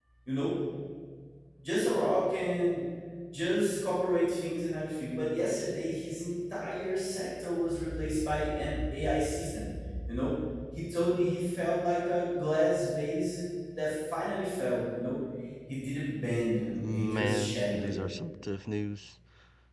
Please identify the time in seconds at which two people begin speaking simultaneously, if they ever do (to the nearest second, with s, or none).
17 s